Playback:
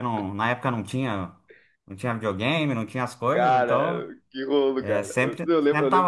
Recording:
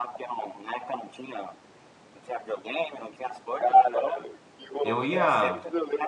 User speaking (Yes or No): Yes